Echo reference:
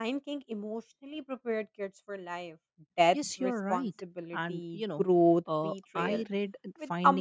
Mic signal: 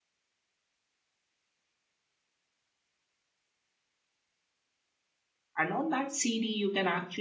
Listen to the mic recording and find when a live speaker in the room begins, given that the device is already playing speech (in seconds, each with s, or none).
5.5 s